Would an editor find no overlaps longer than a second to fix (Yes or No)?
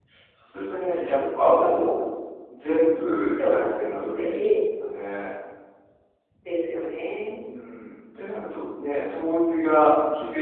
No